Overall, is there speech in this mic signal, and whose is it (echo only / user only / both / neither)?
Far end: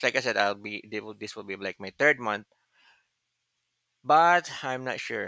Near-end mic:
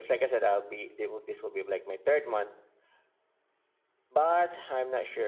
echo only